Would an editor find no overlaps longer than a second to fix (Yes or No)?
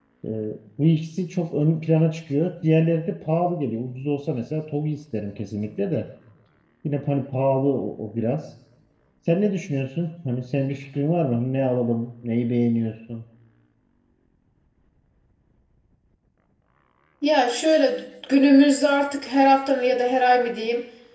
Yes